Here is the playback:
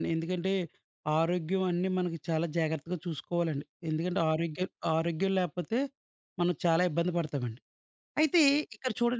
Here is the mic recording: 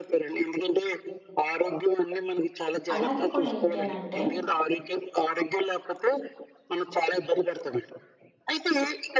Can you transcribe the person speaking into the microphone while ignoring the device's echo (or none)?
అలాగే కూడా ఏంటి అనంటే,